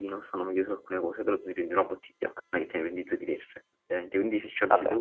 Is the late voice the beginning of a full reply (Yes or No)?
No